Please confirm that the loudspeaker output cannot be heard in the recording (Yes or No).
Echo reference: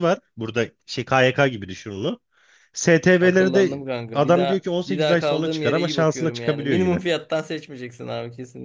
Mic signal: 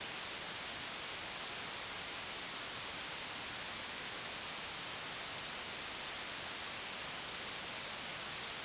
Yes